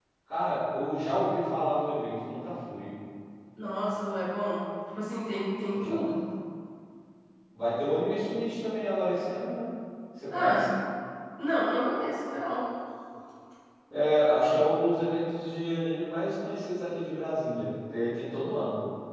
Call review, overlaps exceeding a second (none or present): none